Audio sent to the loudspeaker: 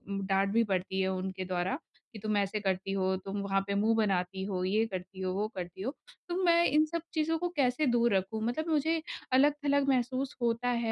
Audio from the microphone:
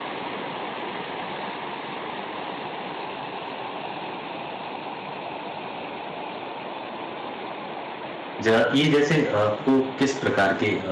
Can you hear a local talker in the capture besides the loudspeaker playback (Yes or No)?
Yes